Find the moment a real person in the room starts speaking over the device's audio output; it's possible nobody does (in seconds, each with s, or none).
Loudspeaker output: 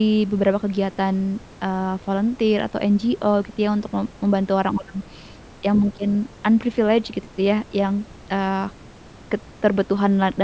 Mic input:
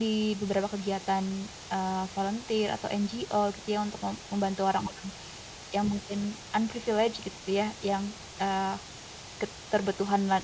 none